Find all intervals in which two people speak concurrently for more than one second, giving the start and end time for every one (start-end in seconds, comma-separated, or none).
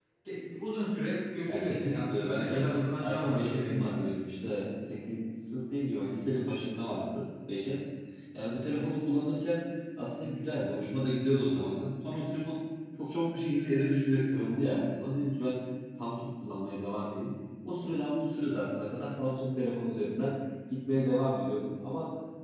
1.5-3.9